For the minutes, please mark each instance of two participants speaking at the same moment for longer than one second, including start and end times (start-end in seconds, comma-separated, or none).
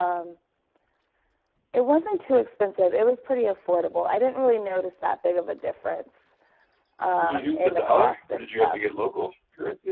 7.2-8.8